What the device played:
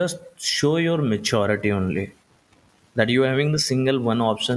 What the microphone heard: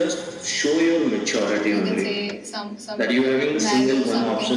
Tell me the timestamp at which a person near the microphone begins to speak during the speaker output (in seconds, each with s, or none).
1.7 s